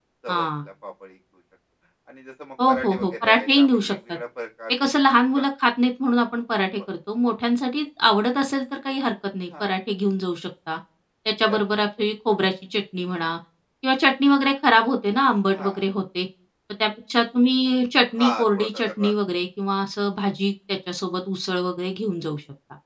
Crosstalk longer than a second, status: present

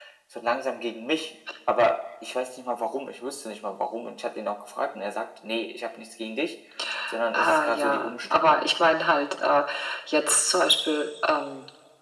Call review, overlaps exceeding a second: present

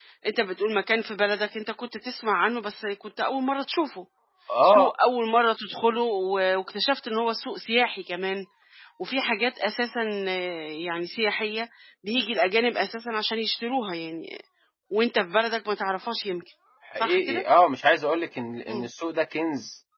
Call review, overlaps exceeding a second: none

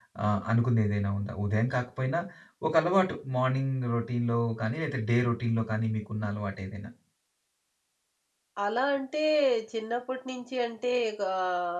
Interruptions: none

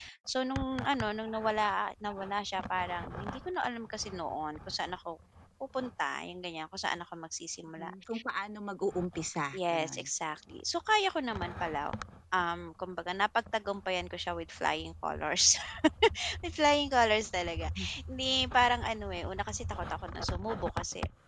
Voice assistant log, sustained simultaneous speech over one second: none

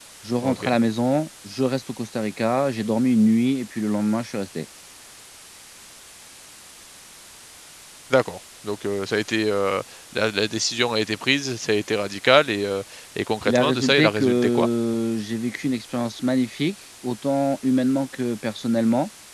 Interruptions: present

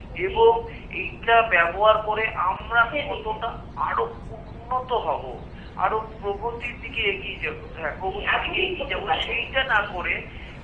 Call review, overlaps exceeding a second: present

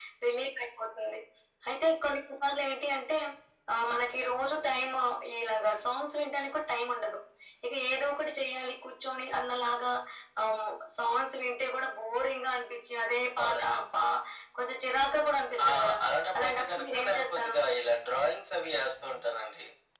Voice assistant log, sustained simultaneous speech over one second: present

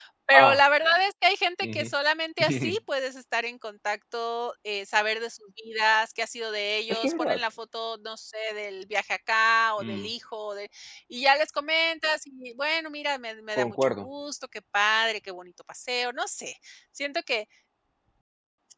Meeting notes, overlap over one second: none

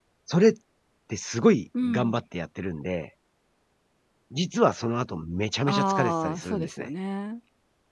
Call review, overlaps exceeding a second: present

